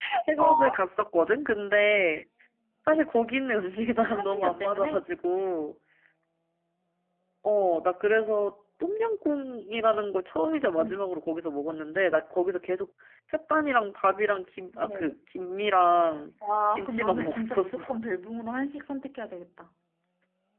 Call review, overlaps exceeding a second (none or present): present